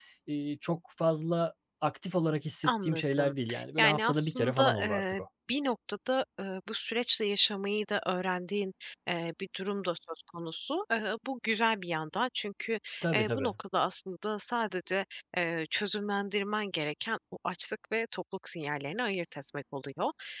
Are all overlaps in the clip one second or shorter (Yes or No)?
No